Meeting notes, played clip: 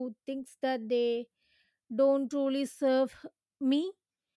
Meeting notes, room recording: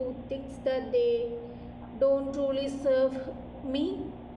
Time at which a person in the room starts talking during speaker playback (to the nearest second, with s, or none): none